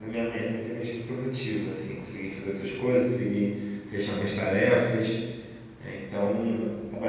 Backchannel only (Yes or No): Yes